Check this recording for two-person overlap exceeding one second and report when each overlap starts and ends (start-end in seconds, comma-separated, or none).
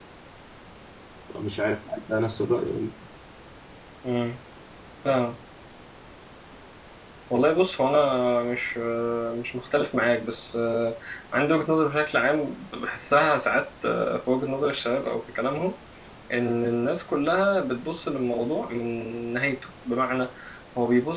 none